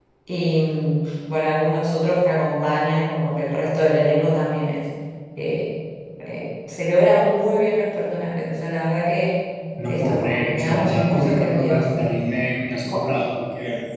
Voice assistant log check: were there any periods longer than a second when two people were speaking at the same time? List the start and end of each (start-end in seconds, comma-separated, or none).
9.9-11.8